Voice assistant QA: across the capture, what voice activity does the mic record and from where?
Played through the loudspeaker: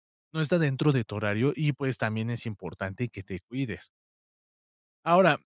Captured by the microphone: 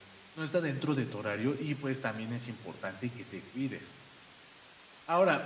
echo only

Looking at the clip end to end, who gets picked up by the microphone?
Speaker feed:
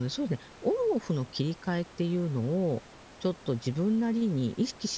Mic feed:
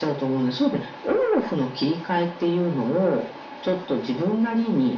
echo only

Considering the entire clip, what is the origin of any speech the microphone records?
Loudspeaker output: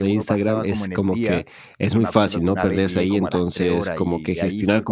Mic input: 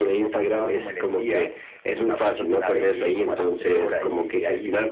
echo only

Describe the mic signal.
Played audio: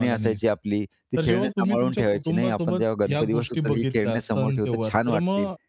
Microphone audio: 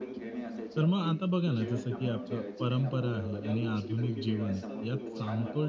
both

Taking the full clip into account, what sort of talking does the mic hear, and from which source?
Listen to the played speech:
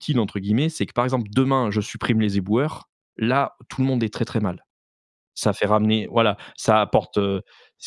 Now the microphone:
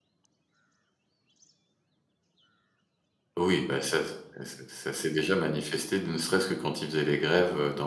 user only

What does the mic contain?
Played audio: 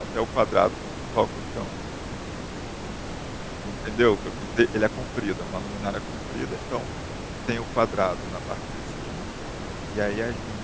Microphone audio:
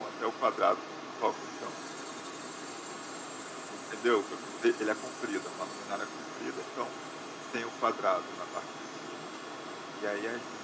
echo only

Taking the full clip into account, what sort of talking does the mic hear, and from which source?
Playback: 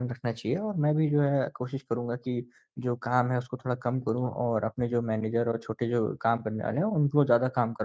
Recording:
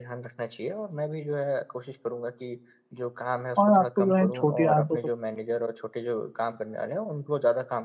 both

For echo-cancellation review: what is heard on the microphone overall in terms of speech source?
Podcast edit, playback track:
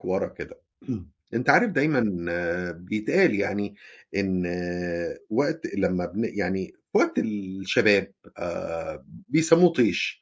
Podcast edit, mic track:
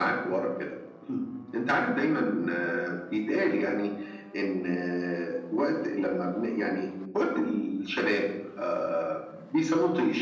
echo only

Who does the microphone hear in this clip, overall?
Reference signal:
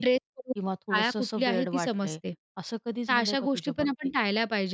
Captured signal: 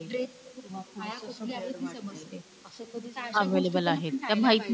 both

